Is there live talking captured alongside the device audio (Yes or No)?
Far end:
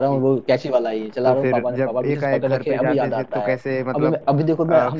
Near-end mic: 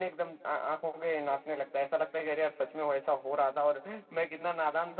Yes